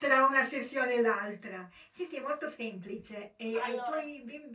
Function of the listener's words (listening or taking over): listening